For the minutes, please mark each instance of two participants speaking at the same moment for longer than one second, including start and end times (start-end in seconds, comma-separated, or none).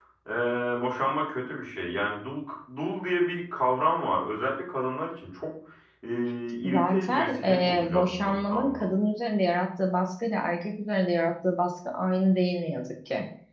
6.6-8.8